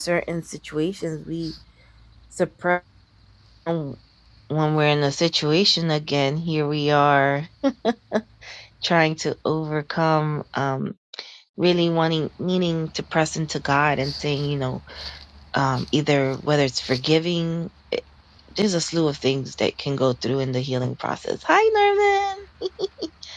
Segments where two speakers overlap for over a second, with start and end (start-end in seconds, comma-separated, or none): none